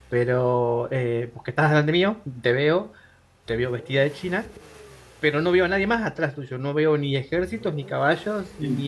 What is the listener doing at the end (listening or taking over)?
taking over